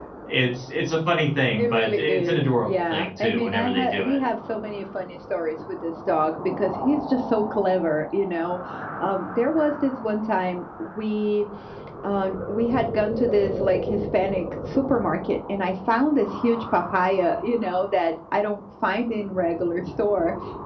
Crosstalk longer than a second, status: present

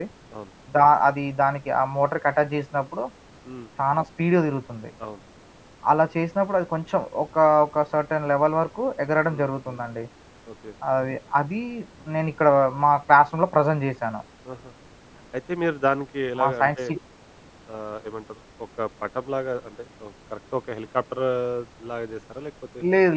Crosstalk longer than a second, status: none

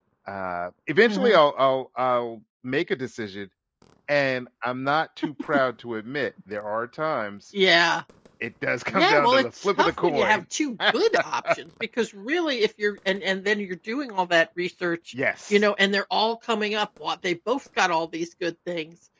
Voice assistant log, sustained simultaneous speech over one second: present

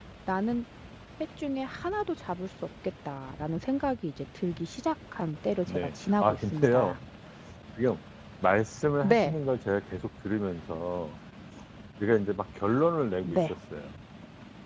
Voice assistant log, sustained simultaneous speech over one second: present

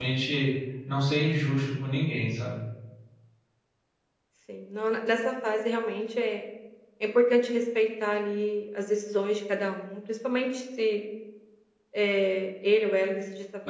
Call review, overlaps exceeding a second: none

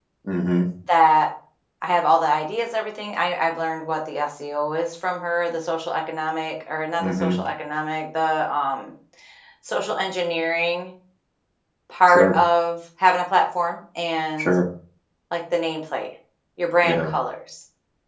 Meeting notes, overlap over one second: none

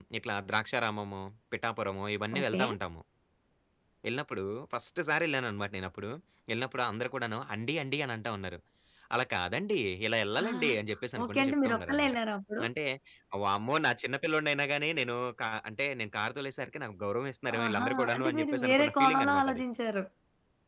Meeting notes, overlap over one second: present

